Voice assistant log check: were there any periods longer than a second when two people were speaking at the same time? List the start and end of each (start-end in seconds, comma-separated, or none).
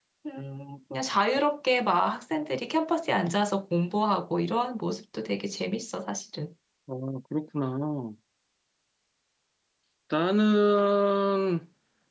none